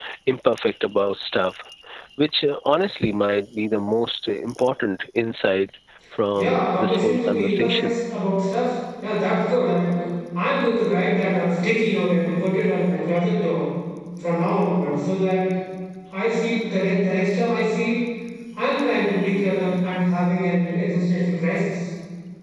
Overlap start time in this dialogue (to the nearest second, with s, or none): 6 s